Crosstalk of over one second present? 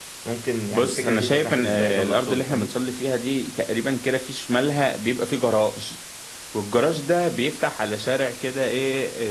Yes, from 0.7 s

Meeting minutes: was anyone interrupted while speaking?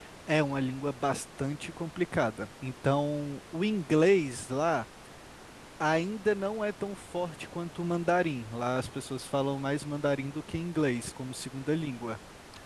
No

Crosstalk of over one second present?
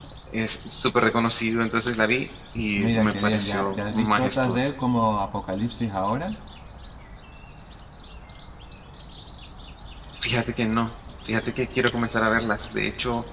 Yes, from 2.8 s

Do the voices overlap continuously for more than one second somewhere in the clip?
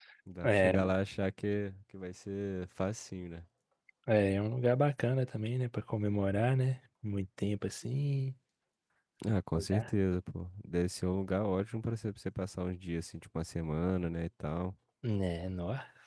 No

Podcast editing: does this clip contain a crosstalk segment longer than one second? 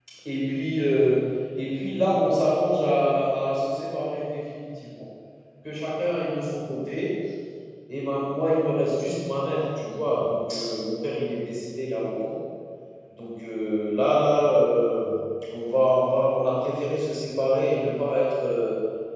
No

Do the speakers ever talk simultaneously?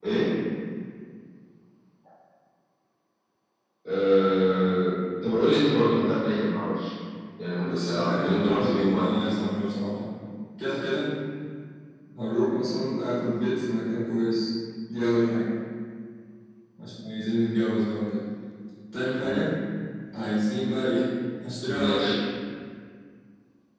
Yes, from 7.6 s

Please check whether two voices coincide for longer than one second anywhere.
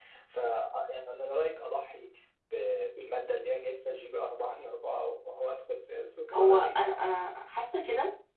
No

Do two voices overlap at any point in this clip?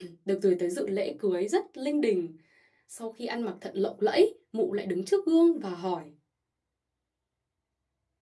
No

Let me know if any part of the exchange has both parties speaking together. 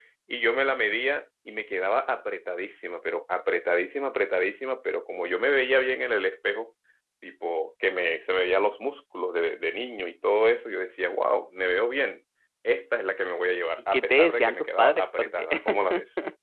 Yes, from 13.9 s

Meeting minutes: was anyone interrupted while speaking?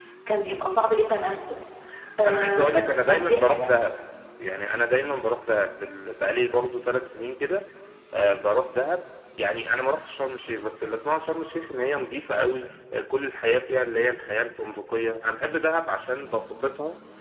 Yes, from 2.2 s

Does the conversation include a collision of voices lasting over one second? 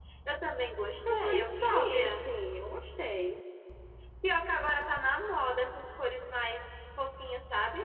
Yes, from 1.0 s

